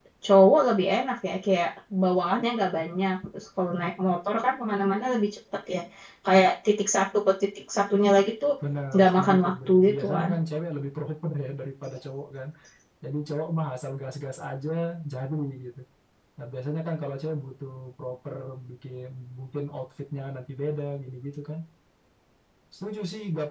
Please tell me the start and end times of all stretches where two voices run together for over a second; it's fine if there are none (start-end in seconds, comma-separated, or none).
8.9-10.3